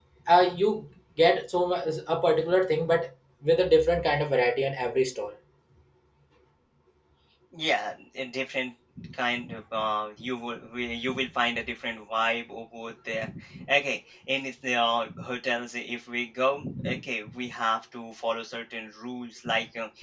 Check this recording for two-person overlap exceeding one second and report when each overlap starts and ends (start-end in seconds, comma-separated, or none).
none